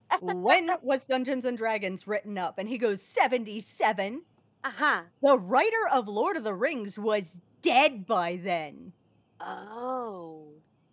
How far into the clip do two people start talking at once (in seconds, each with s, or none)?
none